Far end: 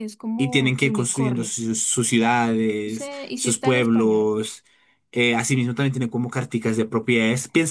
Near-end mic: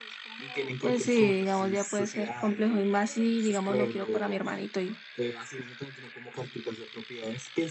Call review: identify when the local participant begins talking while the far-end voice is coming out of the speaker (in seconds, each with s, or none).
0.8 s